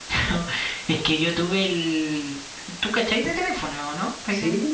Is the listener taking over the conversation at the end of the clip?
Yes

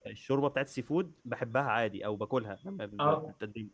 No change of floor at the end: Yes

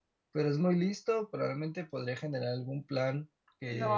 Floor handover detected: Yes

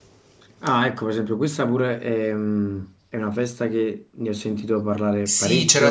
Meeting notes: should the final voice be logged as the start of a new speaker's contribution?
Yes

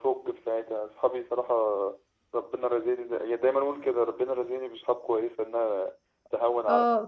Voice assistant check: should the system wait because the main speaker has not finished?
No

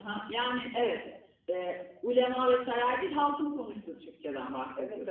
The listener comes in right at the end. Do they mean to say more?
Yes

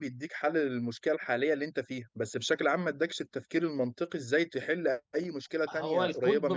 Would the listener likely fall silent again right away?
No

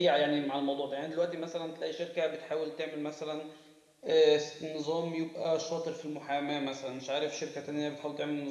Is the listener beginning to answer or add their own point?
No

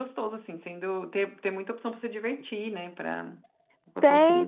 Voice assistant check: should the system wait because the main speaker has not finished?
No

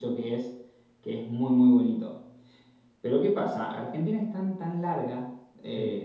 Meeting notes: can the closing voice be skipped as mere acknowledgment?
Yes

